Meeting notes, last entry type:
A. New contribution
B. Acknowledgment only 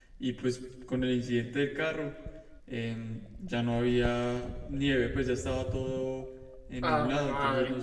A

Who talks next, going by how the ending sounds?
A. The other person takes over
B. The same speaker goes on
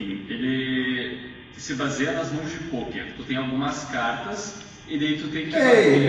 A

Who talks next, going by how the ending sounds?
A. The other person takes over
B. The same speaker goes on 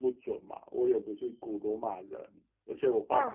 B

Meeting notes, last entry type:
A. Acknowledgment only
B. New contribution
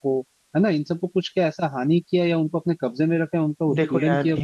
B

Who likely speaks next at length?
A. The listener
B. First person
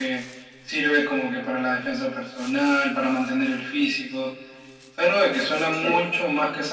B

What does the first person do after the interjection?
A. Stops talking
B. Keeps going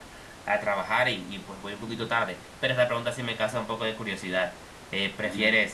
B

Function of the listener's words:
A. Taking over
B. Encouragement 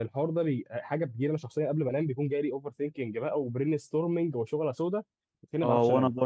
A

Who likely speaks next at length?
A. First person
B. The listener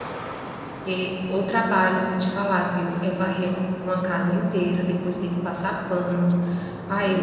B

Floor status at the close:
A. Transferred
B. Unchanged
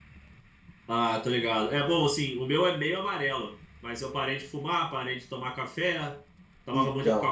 B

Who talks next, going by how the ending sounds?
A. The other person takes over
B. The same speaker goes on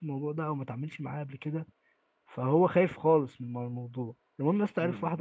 A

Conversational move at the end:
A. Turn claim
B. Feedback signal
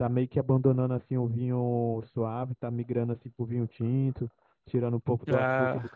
B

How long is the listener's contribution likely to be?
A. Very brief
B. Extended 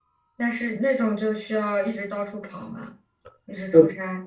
B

